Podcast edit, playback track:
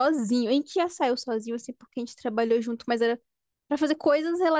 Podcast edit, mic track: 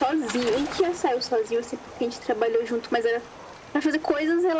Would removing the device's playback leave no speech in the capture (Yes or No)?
Yes